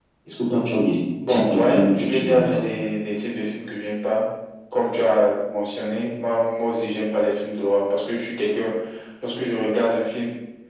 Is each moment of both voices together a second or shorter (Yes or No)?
No